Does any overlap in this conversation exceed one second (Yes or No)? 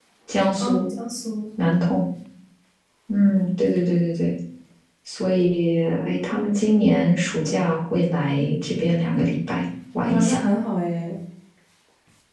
No